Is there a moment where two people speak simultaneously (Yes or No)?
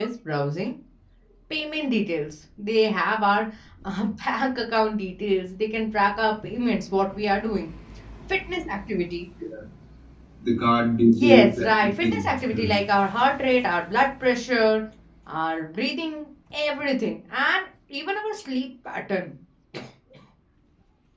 Yes